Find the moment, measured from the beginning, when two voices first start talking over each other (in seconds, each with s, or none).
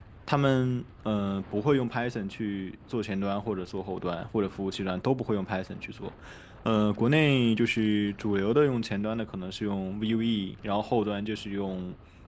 none